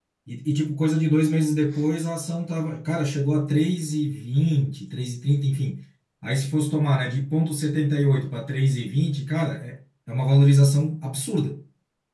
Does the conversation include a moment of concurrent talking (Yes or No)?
No